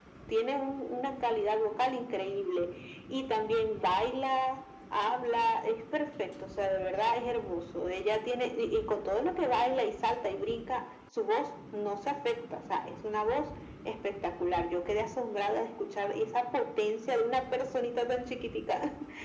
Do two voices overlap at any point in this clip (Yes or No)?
No